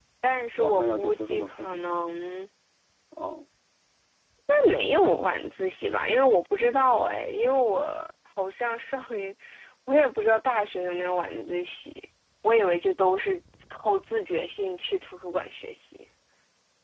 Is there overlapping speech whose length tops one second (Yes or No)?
Yes